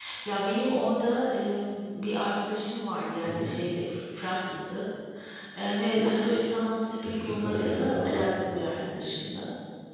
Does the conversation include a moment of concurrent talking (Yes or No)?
Yes